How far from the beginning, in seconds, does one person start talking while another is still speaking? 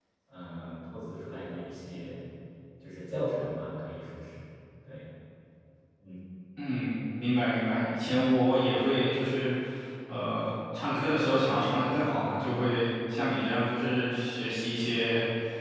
none

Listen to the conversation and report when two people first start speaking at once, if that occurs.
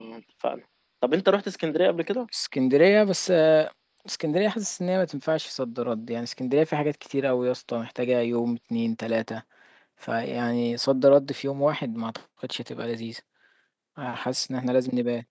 none

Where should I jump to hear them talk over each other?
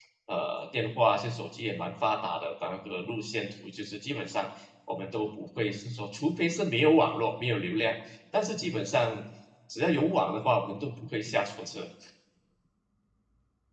none

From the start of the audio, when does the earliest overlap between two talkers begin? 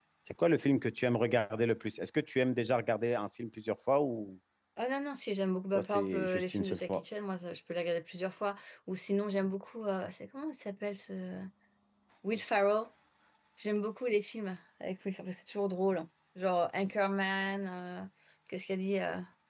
5.8 s

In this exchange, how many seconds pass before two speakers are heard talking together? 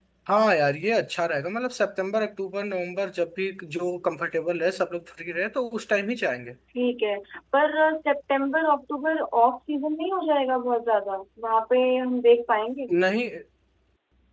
none

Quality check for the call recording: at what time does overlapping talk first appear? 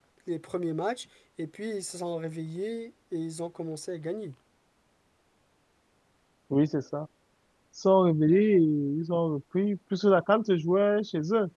none

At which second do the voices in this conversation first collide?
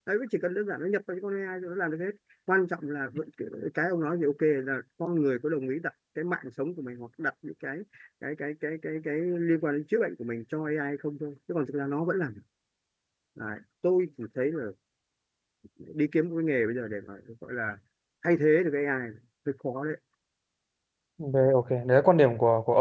none

